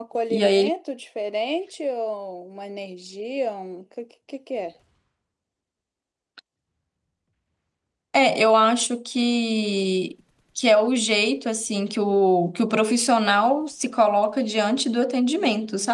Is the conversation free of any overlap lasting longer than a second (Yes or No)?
Yes